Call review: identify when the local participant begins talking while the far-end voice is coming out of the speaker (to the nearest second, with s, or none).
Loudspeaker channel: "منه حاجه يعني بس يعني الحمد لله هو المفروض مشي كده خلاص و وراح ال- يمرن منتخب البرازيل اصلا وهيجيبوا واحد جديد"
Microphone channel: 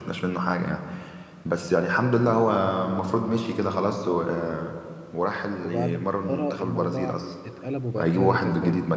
6 s